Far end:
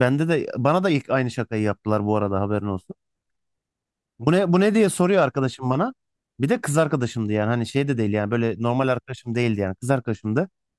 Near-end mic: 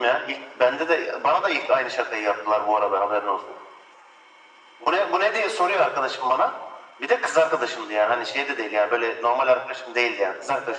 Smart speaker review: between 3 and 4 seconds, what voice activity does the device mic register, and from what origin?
echo only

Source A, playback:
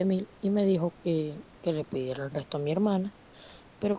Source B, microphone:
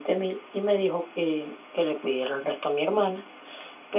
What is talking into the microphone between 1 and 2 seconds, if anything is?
echo only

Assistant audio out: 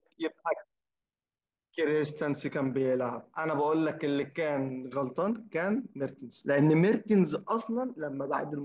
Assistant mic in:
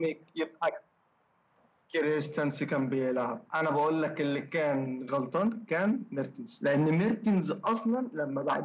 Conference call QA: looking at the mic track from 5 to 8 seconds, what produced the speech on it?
echo only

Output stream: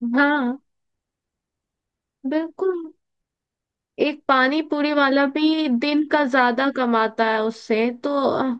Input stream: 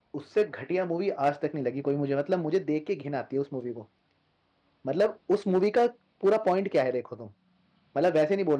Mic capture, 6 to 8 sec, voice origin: user only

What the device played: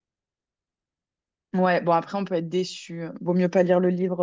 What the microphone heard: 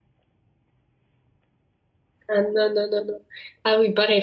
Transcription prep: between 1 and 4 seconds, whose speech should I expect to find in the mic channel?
user only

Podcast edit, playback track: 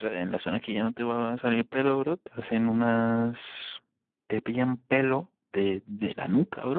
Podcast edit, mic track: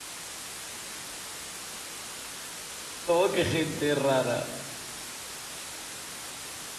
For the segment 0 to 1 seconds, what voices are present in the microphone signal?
neither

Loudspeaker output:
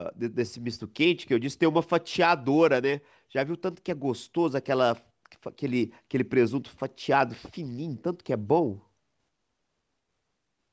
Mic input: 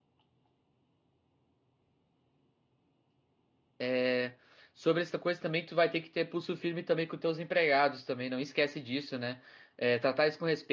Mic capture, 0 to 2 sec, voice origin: neither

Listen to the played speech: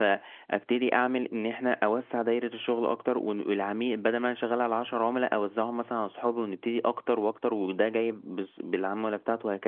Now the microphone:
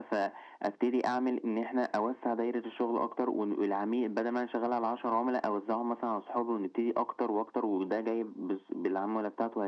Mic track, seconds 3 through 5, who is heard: echo only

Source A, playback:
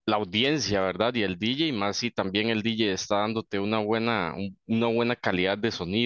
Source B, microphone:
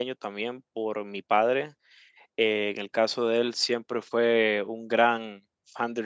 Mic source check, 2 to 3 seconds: user only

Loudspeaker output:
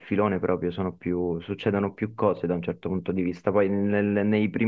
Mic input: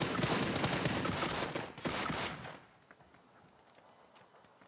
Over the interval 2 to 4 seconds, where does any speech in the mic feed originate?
neither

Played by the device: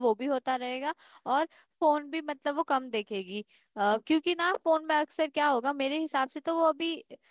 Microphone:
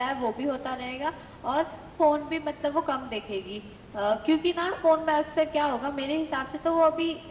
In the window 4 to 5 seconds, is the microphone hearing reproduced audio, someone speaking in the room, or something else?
echo only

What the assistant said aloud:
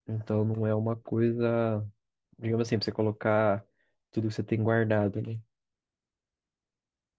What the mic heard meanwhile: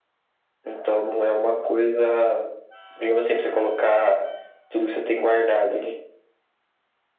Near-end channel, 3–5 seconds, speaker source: echo only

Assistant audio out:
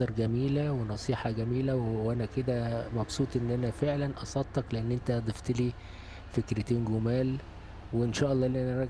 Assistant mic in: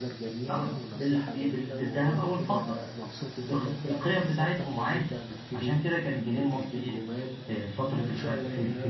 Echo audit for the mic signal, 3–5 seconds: both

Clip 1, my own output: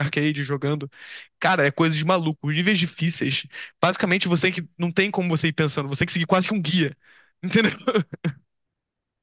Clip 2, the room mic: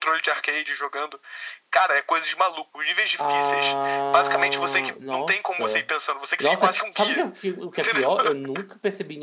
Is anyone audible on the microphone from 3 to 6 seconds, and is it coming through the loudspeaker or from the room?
both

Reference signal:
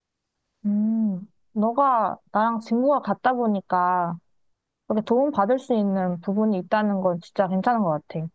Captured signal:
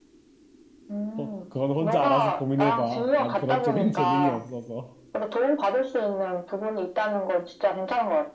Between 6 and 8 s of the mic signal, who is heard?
echo only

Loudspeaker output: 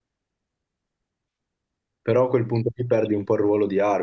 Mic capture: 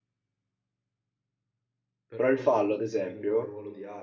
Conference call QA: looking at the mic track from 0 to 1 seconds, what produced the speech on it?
neither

